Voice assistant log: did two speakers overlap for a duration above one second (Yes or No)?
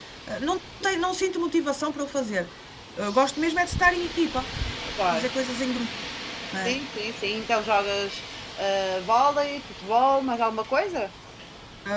No